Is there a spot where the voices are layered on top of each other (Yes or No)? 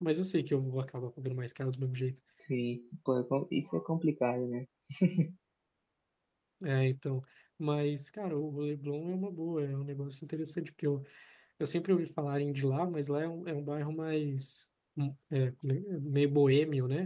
No